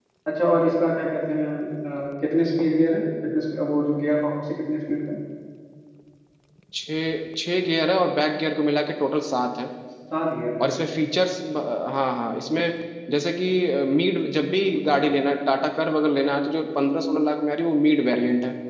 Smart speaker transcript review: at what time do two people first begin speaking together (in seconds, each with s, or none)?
none